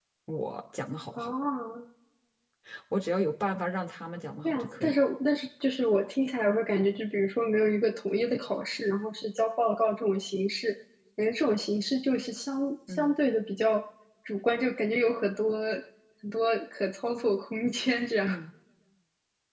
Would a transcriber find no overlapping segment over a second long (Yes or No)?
Yes